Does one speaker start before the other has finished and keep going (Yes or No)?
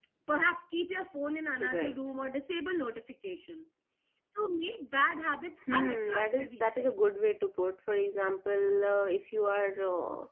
Yes